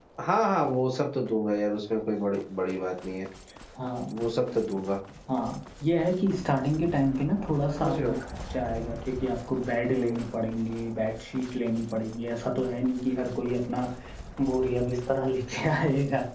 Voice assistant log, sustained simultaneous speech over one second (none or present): none